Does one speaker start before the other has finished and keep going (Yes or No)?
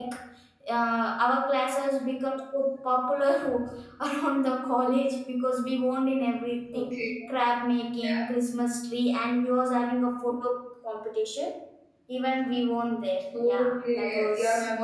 Yes